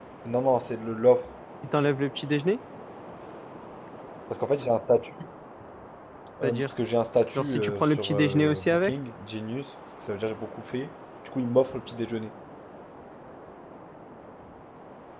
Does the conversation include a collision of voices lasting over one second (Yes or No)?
Yes